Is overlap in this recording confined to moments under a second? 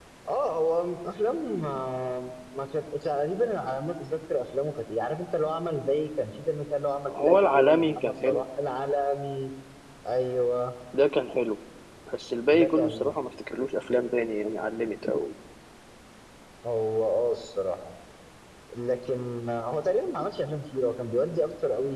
No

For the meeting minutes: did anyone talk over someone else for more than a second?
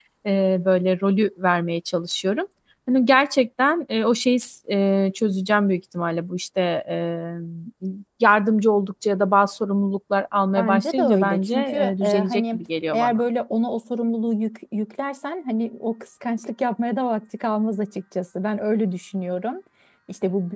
Yes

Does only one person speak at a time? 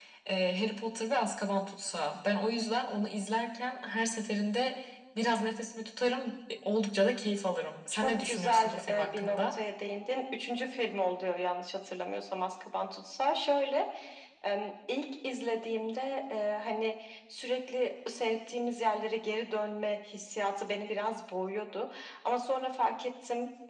No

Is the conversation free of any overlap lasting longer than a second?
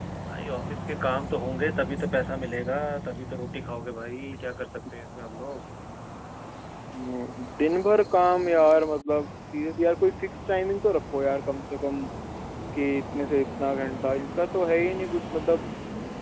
Yes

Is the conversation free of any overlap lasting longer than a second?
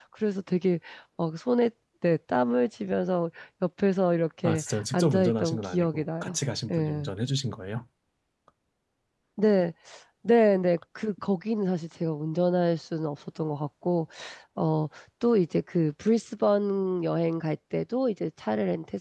No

